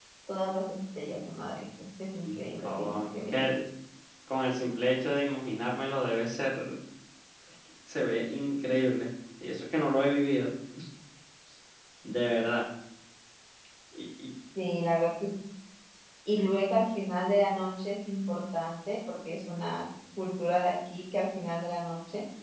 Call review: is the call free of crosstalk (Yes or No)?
No